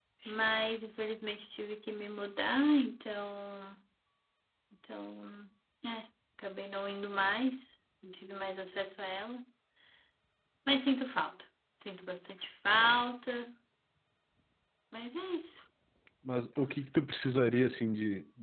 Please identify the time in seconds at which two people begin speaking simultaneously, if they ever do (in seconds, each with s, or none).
none